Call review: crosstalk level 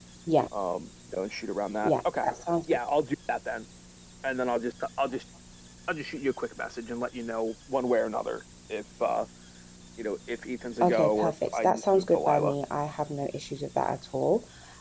present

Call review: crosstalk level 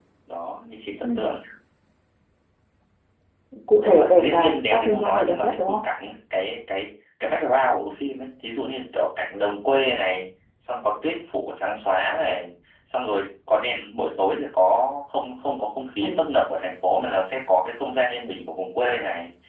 present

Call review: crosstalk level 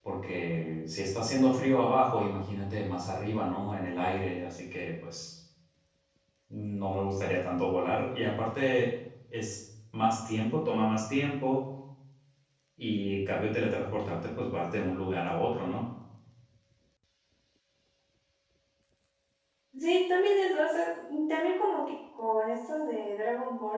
none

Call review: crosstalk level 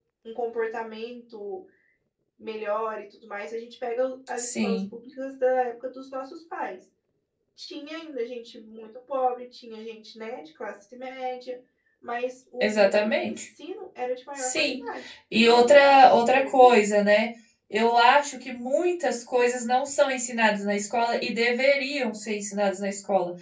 present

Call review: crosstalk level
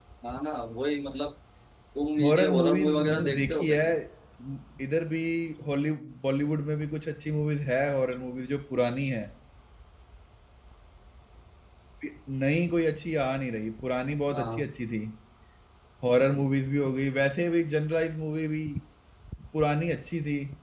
present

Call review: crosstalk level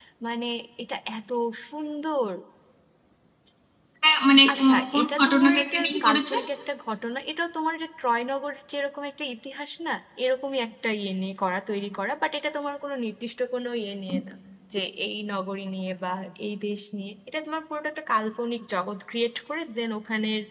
present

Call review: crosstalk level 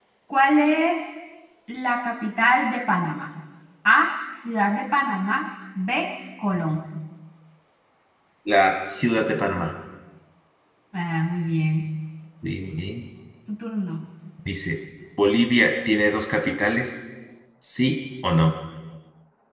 none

